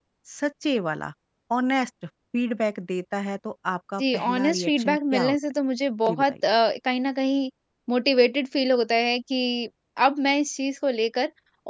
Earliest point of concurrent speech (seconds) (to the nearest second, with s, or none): 4 s